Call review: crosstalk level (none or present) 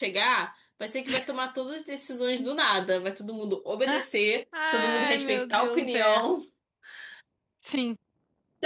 present